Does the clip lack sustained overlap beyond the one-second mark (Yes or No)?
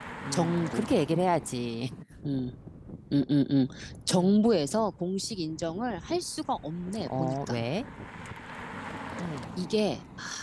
Yes